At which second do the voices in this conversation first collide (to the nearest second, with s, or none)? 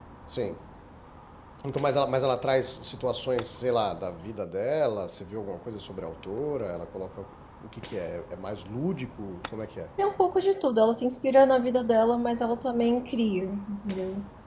none